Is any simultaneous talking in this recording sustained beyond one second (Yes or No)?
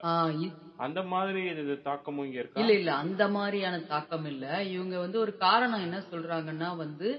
No